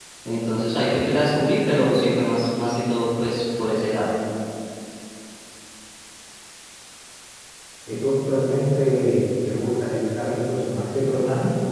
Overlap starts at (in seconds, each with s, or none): none